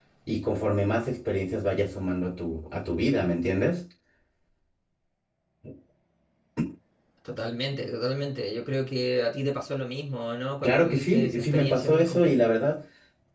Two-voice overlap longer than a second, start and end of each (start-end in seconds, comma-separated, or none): 10.6-12.4